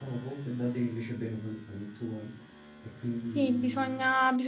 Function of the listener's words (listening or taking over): taking over